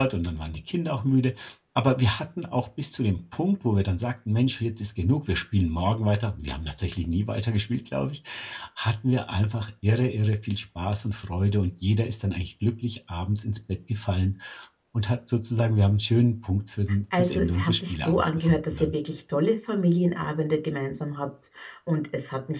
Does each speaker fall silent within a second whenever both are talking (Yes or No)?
No